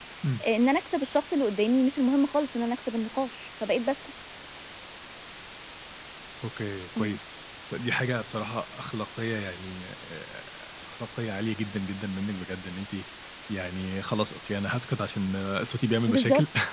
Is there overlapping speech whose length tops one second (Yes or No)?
No